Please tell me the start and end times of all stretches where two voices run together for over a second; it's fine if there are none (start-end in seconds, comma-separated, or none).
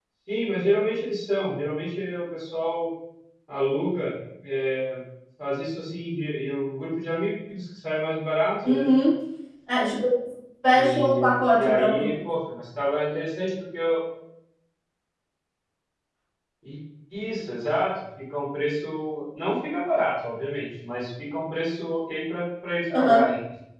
10.7-12.1